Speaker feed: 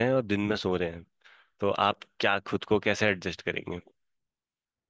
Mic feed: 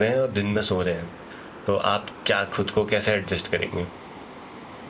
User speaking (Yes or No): No